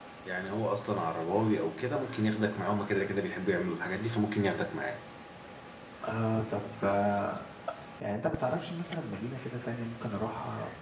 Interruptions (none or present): none